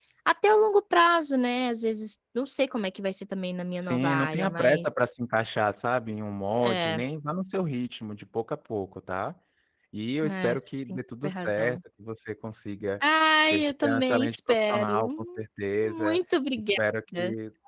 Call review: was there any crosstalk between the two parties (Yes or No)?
Yes